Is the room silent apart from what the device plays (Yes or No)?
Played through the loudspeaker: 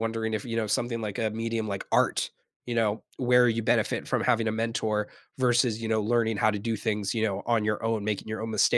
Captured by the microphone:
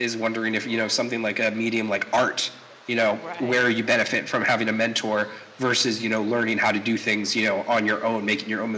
No